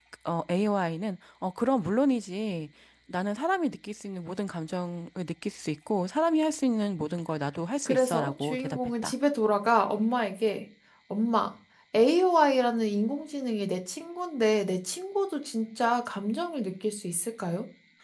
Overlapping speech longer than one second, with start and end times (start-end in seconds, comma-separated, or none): 7.8-9.1